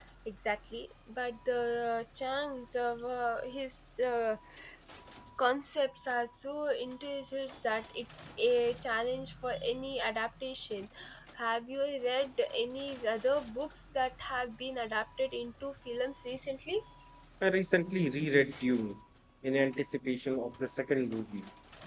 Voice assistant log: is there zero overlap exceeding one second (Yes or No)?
Yes